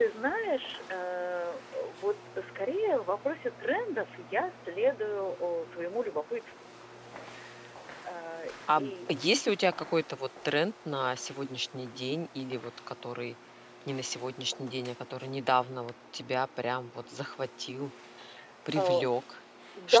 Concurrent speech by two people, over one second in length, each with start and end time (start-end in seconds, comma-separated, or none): none